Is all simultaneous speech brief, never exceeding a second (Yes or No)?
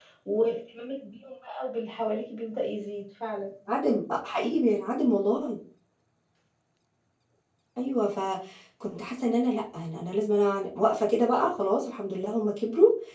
Yes